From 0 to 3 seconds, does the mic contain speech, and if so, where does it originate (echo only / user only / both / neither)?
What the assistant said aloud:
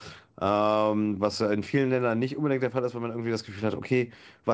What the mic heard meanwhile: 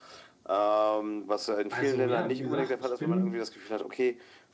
both